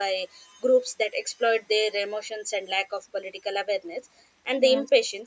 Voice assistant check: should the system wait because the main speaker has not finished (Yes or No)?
Yes